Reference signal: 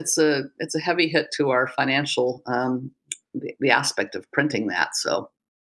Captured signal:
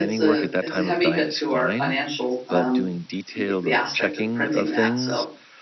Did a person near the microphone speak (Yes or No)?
Yes